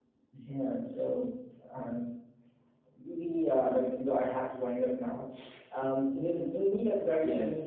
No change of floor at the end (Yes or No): No